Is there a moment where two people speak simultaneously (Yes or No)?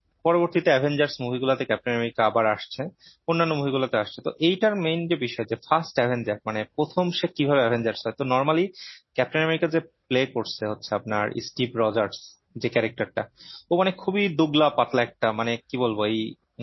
No